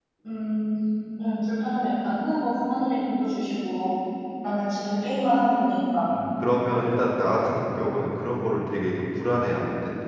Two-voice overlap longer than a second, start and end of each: none

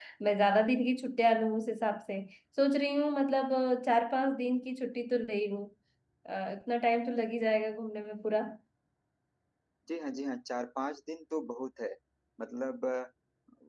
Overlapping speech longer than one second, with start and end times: none

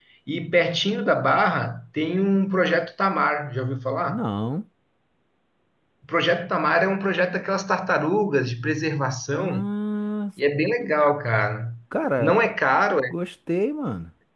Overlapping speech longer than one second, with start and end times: none

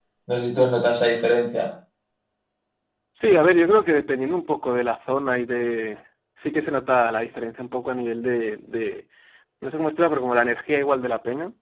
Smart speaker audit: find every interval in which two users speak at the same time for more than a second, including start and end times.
none

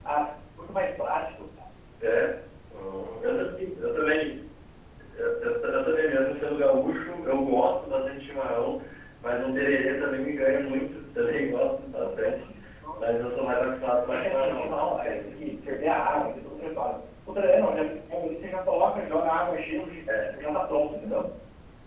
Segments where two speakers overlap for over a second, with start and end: 14.1-15.4

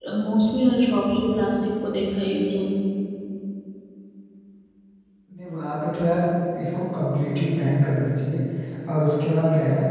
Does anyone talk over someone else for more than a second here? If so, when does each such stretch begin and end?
none

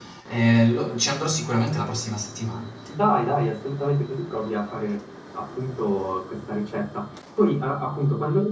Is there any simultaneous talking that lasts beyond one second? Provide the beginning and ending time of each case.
none

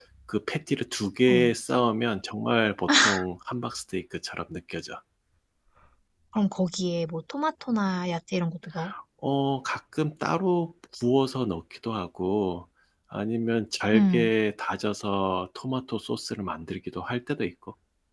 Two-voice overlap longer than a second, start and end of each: none

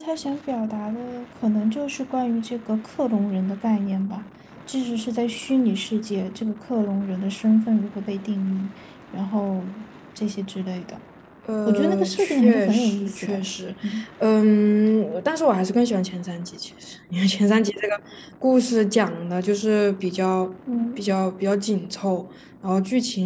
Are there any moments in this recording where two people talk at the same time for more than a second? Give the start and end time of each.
11.7-13.4

